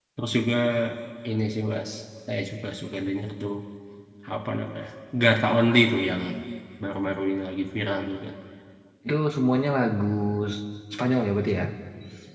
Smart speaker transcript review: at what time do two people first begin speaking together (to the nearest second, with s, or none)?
none